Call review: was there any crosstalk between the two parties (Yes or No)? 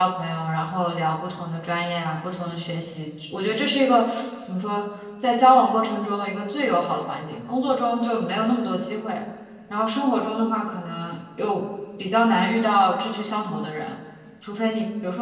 No